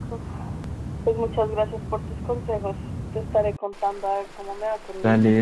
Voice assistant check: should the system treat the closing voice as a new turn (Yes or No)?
Yes